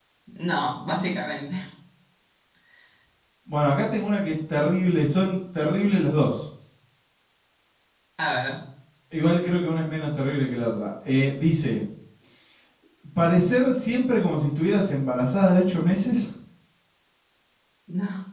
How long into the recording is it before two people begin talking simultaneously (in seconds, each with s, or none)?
none